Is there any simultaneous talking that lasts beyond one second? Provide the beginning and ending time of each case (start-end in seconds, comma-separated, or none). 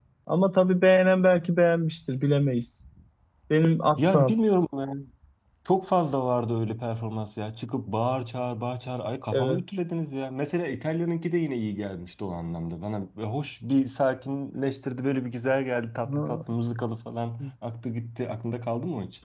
none